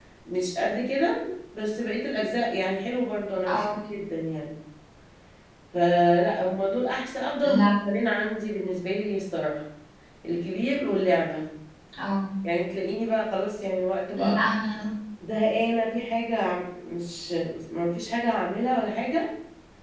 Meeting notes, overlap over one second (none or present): none